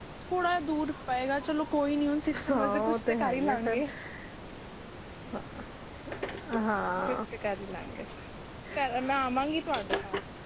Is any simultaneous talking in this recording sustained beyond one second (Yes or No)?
Yes